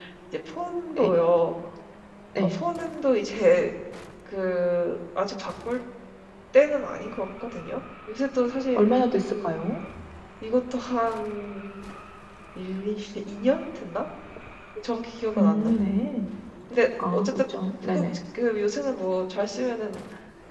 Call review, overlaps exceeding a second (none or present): none